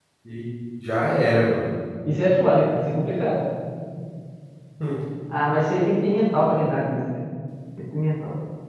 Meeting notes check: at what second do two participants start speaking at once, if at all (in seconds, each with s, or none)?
none